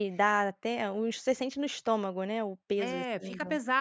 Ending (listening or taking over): taking over